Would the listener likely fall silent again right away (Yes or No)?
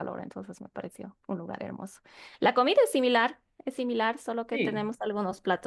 Yes